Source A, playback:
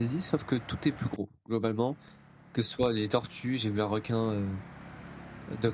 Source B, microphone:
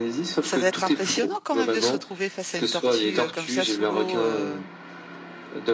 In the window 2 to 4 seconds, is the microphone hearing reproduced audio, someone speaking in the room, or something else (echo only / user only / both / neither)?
both